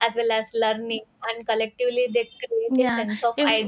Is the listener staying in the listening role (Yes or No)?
No